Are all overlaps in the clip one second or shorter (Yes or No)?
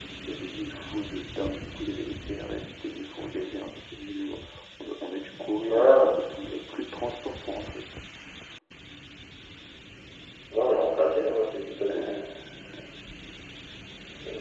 Yes